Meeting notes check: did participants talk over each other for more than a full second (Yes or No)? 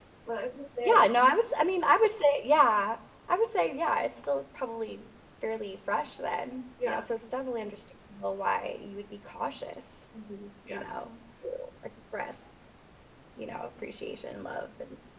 No